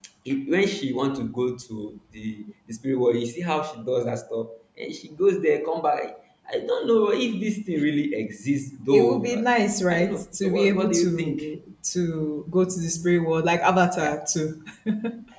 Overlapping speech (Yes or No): Yes